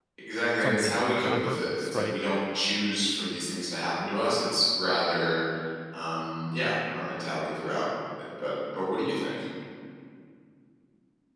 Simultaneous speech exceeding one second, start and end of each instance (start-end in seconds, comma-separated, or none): 0.6-2.2